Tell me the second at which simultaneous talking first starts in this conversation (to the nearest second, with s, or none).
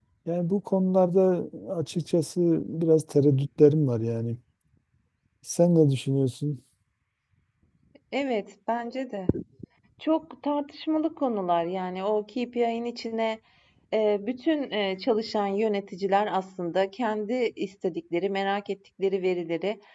none